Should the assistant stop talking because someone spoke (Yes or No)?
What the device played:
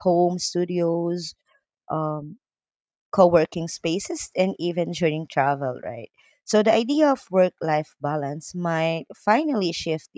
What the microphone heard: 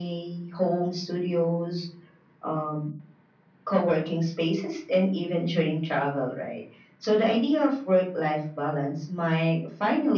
No